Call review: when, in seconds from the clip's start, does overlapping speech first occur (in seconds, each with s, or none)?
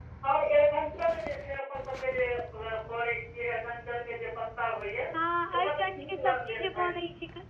5.5 s